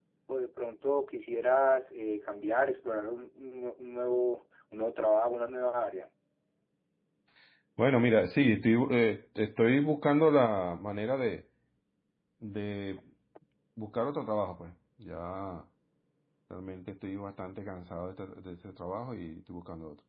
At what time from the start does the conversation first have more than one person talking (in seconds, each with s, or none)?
none